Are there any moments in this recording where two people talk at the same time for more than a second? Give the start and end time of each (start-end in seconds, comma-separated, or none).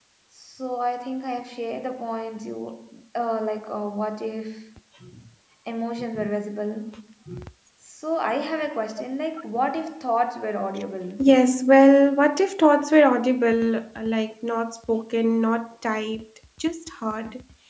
none